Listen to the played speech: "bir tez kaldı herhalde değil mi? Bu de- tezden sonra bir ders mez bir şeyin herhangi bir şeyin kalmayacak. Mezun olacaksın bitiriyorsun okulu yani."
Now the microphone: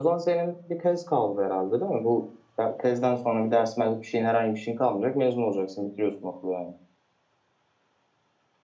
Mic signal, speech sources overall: echo only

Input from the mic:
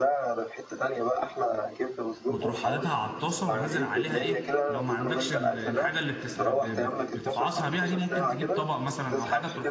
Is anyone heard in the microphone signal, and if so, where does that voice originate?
both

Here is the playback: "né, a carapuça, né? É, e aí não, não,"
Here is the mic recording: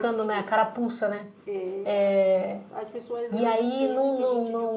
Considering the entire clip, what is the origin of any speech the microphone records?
both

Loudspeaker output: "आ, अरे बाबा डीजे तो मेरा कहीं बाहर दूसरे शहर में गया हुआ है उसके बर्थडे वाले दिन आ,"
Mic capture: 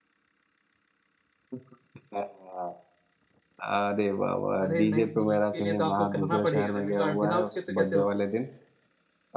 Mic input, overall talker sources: both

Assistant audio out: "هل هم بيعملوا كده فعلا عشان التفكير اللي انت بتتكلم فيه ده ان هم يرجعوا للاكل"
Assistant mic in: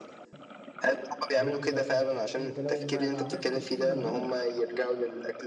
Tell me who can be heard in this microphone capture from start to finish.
both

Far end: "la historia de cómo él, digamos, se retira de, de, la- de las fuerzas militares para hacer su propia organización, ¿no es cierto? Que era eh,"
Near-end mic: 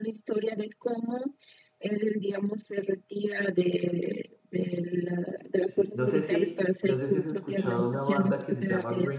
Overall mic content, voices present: both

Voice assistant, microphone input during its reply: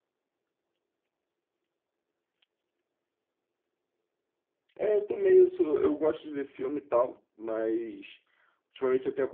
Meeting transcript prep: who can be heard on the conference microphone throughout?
user only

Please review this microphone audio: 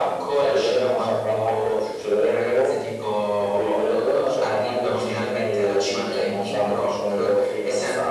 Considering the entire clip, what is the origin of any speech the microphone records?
echo only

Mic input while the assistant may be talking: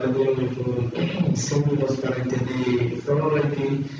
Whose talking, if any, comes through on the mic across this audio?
echo only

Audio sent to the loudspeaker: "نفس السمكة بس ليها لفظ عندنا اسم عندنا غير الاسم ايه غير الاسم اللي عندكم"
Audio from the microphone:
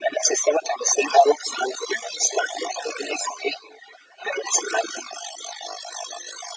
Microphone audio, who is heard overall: echo only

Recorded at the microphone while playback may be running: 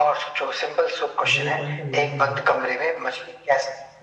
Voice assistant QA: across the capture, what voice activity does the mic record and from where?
both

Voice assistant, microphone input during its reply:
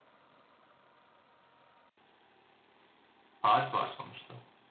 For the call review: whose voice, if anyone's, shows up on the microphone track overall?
user only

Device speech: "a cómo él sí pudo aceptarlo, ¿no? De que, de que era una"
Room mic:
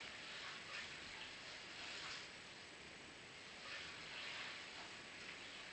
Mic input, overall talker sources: neither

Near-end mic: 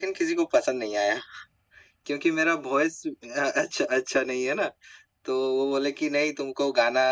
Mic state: echo only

